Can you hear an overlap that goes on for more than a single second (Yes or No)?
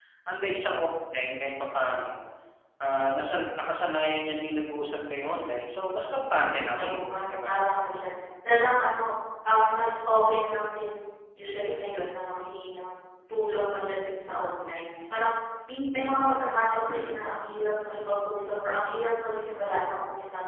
Yes